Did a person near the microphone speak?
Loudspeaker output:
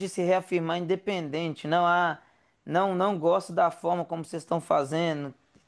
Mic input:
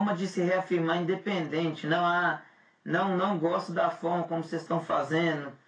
No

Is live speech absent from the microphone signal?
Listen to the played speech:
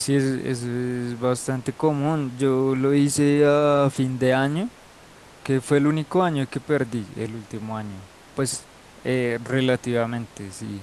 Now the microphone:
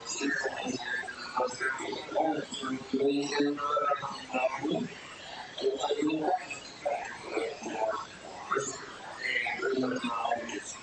Yes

